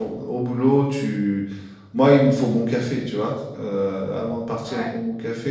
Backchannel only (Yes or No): Yes